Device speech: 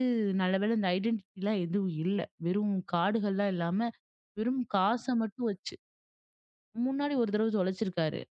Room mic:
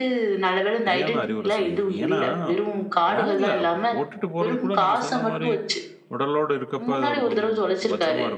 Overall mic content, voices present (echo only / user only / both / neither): both